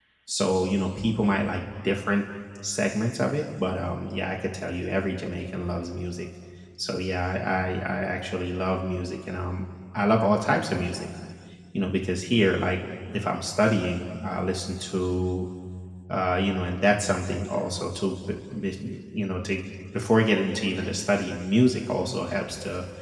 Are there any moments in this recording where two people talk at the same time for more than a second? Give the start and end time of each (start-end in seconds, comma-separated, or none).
none